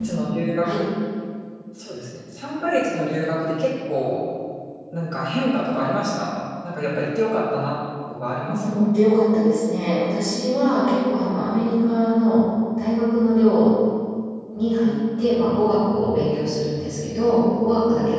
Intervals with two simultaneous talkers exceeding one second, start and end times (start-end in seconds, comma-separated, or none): none